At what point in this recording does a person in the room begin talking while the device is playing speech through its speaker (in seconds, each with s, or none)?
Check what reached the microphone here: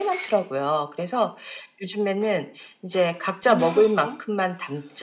3.5 s